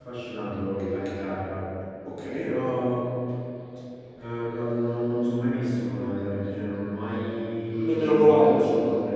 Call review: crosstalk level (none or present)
present